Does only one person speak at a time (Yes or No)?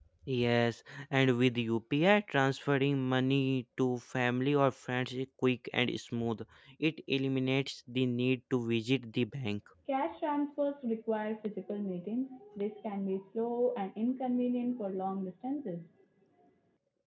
Yes